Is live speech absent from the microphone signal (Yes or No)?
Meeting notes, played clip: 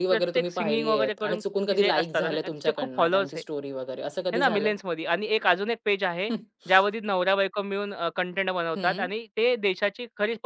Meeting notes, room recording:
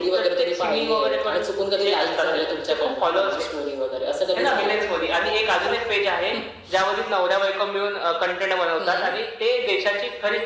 Yes